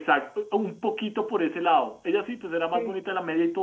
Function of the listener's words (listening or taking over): listening